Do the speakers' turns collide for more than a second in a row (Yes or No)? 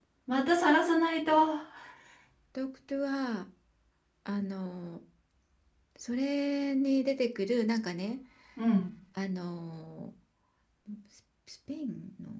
No